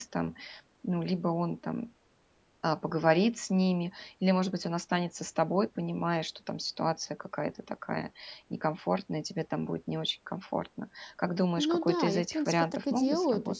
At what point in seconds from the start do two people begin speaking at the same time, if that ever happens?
11.6 s

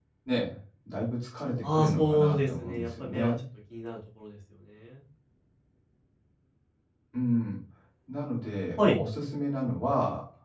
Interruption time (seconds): 1.6 s

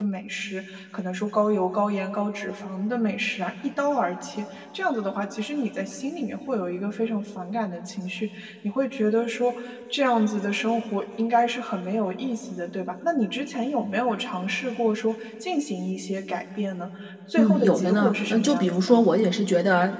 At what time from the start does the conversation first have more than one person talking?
17.4 s

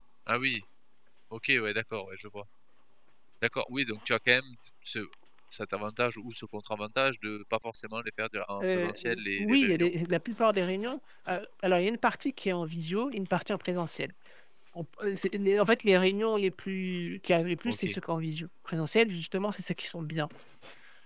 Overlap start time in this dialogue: 8.6 s

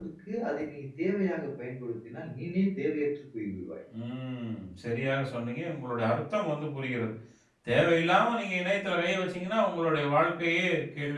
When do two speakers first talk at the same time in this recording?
none

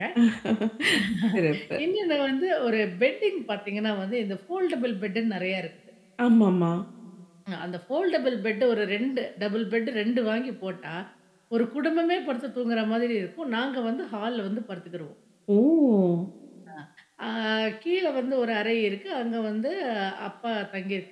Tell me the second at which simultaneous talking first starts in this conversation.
none

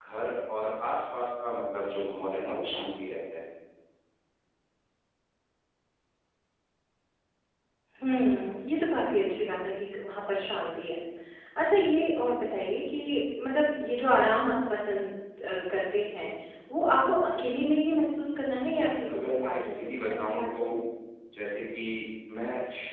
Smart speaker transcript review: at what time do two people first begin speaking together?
18.5 s

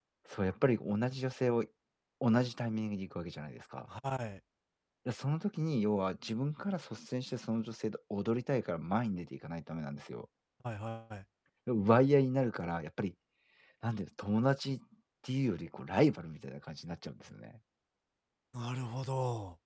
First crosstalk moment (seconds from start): none

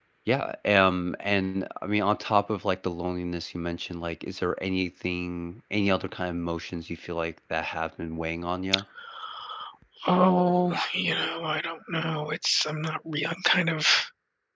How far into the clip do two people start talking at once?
none

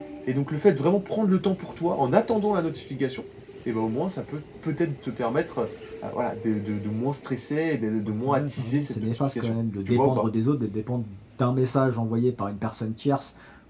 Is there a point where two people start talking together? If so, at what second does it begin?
8.1 s

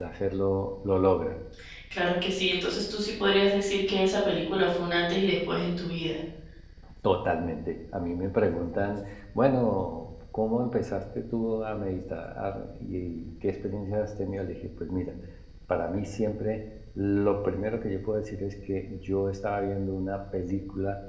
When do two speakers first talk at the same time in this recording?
none

